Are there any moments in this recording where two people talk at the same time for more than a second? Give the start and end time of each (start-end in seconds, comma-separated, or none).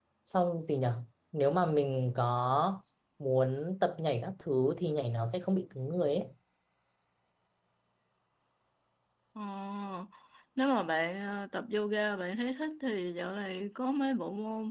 none